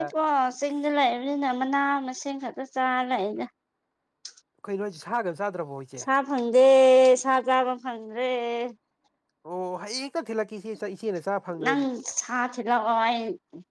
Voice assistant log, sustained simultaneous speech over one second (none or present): none